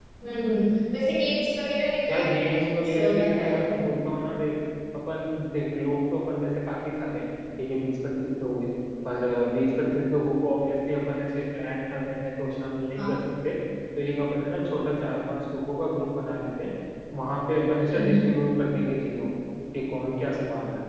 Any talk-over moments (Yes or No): Yes